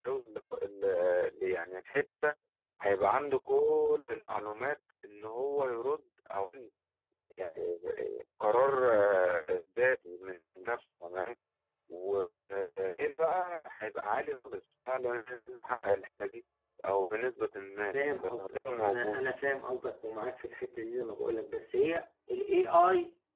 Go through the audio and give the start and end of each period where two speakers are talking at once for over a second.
17.9-19.3

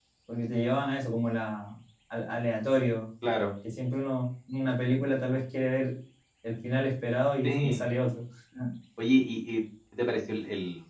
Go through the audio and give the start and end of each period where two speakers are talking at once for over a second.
none

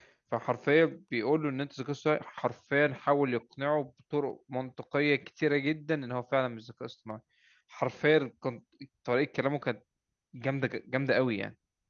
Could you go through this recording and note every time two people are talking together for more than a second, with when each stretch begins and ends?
none

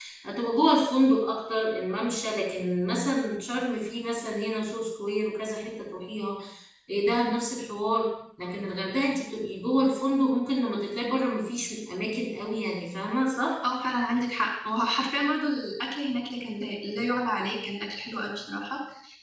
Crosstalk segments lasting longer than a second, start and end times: none

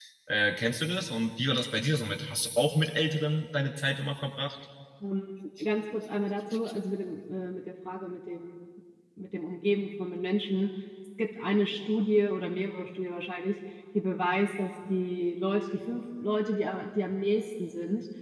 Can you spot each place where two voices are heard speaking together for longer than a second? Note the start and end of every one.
none

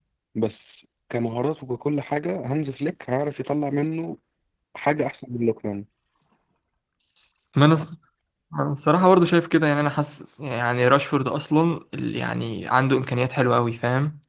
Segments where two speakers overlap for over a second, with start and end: none

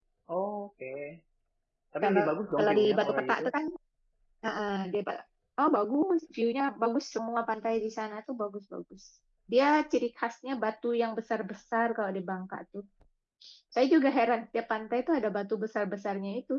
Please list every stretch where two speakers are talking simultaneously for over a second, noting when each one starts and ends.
2.0-3.4

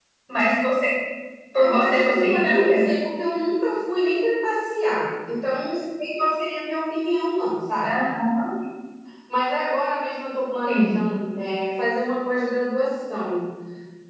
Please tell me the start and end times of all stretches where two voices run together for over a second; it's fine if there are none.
1.6-2.9

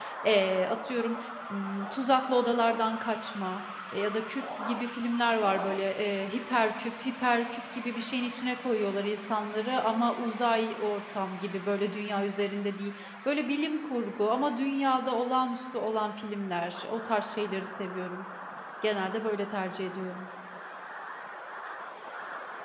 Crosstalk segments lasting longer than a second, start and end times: none

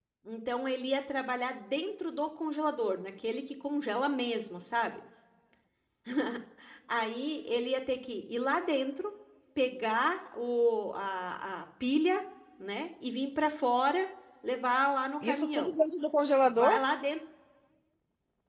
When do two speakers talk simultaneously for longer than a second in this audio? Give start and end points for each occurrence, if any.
none

